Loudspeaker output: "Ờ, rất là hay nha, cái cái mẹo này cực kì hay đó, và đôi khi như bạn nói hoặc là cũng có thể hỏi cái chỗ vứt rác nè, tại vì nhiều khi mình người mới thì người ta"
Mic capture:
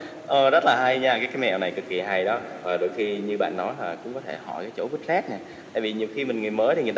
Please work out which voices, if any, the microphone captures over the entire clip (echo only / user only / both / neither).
echo only